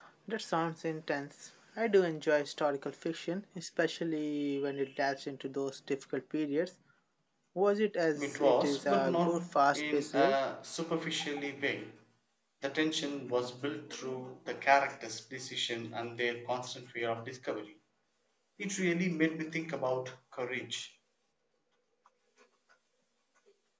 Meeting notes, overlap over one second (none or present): present